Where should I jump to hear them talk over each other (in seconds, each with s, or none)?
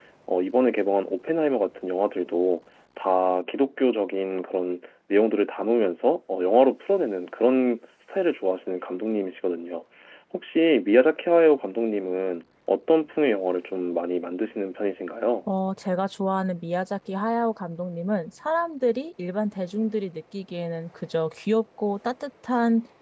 none